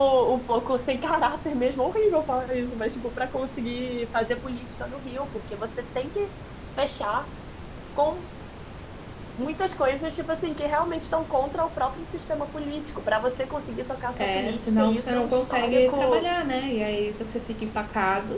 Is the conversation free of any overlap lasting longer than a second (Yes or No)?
No